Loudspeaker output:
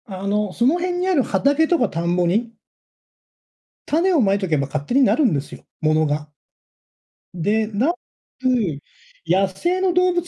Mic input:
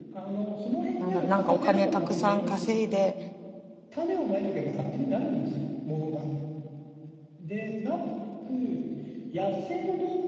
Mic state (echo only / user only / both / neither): both